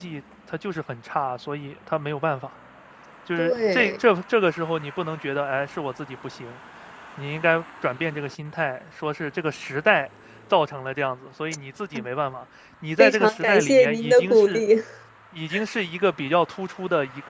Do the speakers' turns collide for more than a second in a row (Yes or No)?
Yes